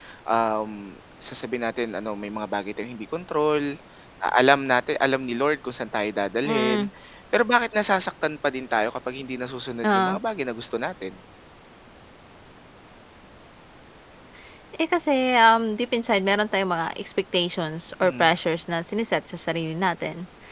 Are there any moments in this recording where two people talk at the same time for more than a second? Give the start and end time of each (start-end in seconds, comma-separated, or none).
none